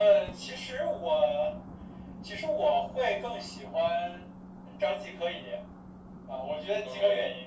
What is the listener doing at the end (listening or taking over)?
listening